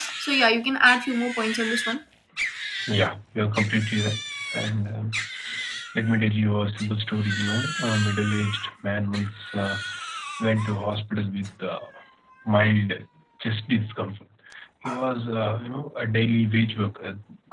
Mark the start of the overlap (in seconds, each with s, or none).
none